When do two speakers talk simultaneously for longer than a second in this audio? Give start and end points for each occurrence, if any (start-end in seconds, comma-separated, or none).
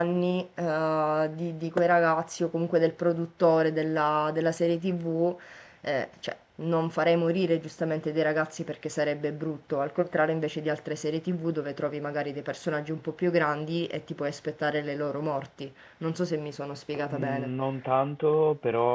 none